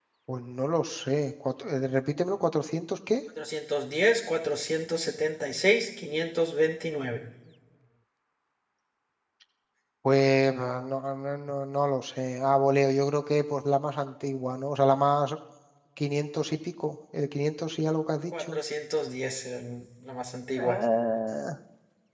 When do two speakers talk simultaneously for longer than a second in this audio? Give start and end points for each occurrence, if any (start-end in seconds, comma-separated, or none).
none